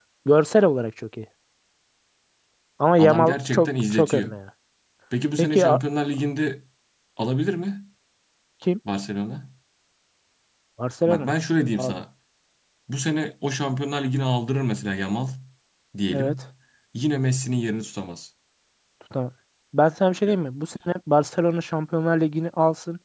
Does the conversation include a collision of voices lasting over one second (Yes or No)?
Yes